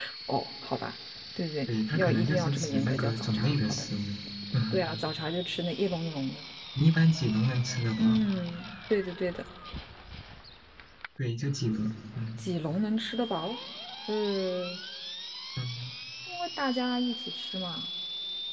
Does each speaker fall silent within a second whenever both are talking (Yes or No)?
No